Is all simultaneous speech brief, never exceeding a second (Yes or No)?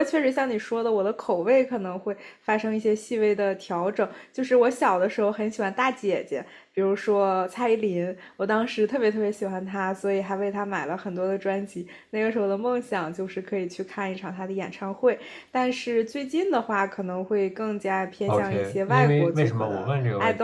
No